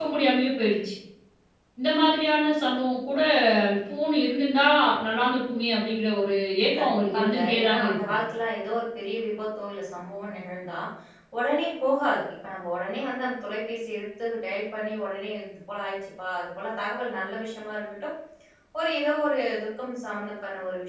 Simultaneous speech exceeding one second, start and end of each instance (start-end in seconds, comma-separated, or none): 6.8-8.1